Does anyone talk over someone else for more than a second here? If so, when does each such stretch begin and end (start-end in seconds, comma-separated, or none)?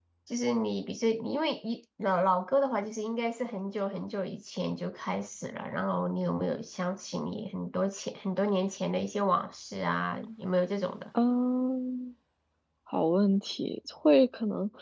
none